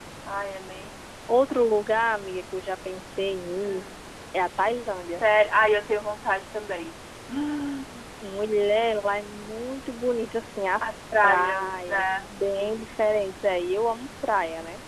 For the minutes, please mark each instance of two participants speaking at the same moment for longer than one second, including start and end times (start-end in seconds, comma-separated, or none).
10.8-12.2